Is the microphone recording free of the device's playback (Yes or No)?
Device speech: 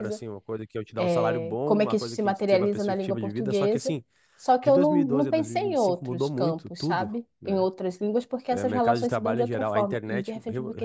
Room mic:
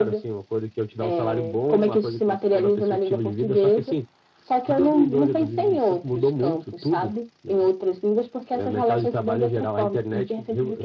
No